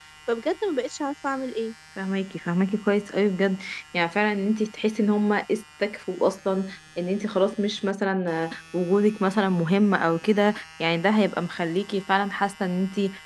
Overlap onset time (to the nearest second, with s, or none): none